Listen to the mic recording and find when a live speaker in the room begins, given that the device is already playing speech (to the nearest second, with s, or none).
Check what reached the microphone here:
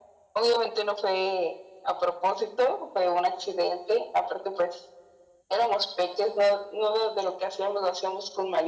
none